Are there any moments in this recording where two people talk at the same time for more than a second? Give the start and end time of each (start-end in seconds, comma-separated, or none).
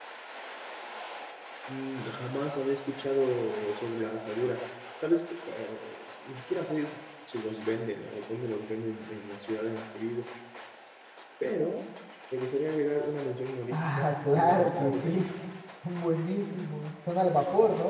13.7-15.2